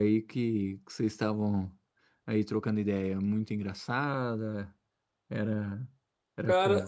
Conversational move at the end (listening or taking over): taking over